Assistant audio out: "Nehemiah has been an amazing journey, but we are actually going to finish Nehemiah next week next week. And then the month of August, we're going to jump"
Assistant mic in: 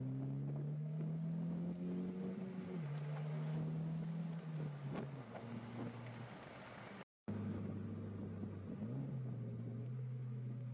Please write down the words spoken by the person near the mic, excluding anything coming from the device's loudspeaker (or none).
none